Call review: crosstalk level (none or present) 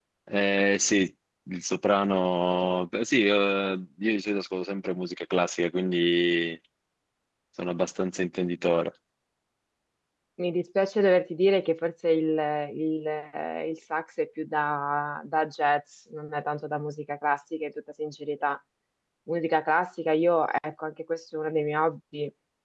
none